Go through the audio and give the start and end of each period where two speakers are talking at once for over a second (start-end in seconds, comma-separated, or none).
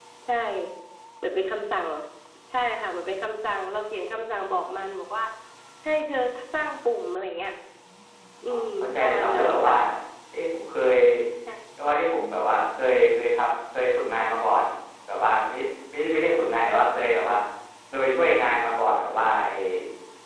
8.5-9.7